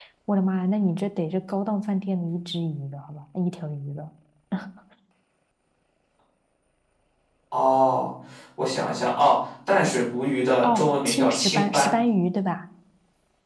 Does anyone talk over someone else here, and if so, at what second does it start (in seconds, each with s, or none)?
10.6 s